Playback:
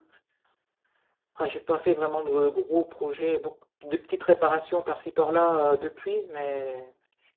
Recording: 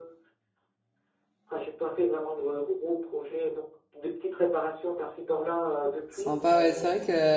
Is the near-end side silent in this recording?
No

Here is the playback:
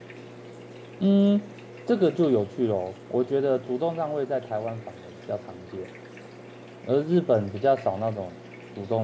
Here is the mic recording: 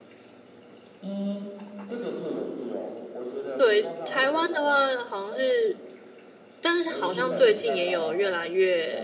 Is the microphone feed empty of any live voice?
No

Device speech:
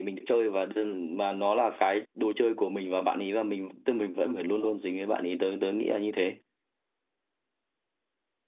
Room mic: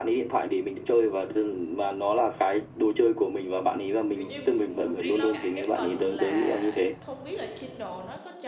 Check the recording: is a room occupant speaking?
Yes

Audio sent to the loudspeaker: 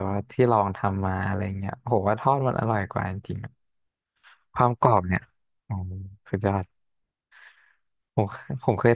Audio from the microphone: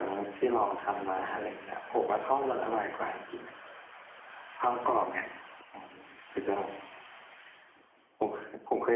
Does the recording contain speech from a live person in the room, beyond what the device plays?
No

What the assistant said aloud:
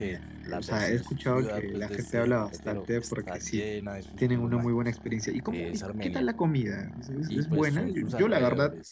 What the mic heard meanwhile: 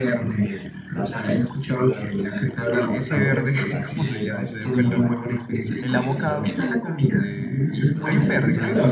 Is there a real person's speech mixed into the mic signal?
Yes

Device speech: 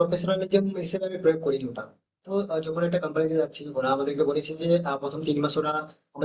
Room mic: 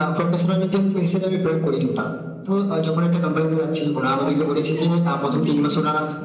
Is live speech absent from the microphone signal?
No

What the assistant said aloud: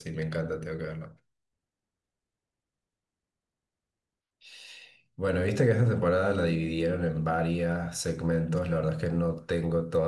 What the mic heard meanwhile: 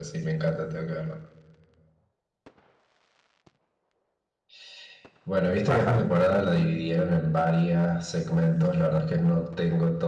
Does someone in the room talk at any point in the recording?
Yes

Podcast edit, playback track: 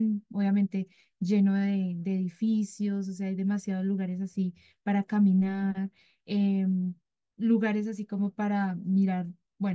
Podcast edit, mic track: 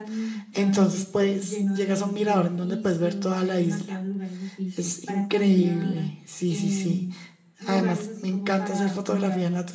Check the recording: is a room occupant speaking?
Yes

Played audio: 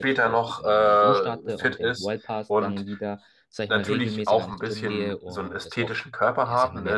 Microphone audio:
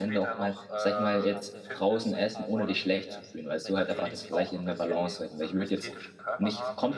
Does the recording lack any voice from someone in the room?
No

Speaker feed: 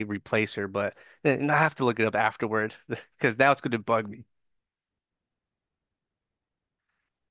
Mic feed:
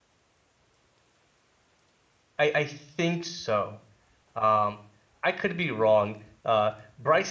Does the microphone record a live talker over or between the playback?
Yes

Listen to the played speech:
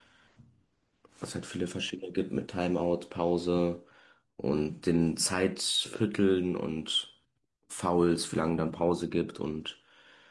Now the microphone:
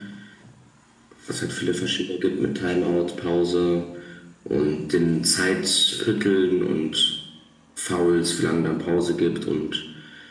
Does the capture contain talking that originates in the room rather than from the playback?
No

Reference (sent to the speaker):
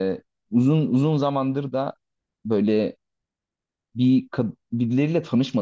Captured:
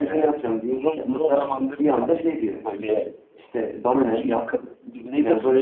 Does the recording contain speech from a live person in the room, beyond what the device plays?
Yes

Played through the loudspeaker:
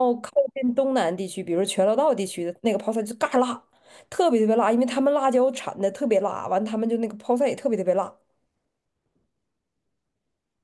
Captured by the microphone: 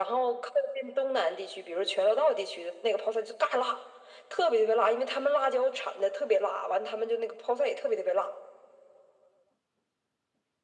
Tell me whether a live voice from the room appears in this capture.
No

